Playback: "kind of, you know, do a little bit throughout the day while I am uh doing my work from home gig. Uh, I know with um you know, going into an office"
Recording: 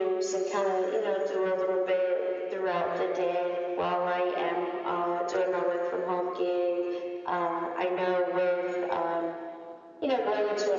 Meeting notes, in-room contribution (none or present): none